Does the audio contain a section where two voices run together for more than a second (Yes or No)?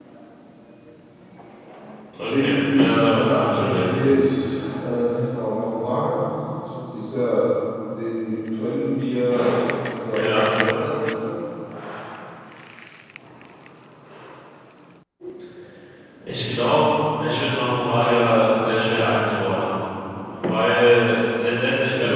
Yes